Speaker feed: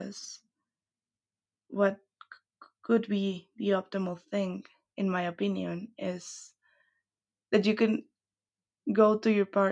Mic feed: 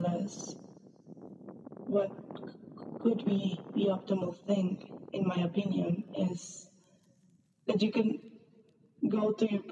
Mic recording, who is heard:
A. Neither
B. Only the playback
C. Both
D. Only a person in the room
B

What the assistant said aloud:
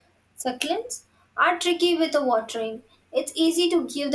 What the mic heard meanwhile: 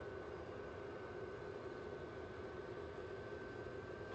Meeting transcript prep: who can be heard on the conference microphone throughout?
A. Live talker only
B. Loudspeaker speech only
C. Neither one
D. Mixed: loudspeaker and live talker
C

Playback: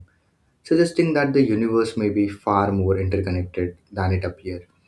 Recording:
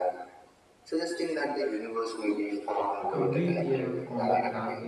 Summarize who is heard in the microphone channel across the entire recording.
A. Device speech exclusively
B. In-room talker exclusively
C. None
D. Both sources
D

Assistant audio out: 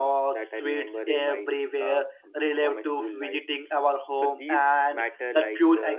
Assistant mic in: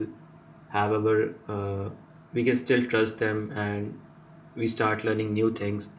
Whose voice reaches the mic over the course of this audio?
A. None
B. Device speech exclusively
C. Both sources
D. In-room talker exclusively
D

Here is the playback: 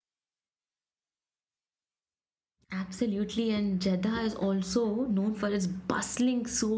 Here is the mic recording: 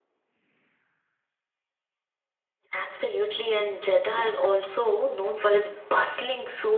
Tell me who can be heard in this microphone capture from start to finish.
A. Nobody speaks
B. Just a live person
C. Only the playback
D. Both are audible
C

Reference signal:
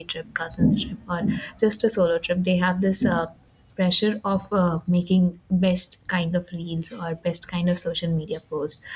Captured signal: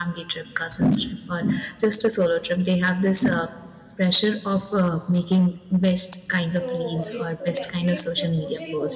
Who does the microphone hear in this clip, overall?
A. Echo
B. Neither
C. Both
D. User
C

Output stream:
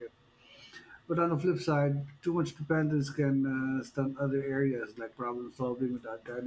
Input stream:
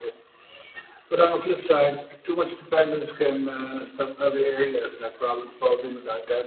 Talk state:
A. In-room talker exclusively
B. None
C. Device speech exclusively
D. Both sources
C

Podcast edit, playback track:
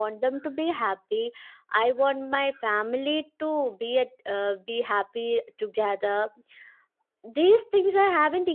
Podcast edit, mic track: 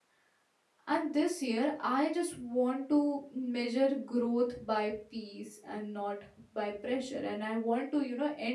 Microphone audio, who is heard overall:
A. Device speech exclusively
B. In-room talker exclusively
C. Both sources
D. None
B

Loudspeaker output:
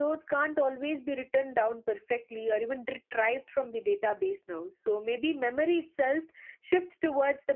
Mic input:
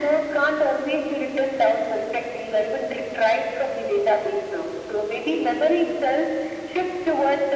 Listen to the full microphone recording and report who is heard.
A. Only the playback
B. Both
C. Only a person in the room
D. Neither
A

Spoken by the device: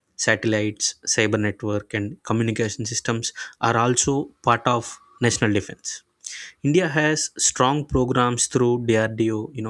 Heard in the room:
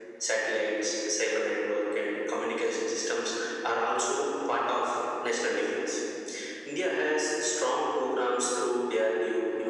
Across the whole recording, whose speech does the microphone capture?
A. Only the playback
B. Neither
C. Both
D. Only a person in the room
A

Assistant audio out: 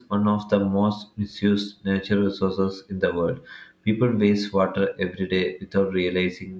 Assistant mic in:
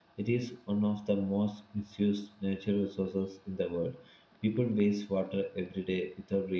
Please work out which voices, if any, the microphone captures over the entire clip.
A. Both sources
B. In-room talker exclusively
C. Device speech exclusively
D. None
C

